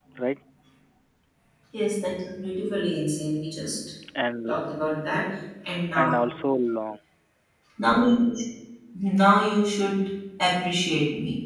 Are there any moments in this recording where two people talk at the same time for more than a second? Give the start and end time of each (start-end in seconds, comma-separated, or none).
none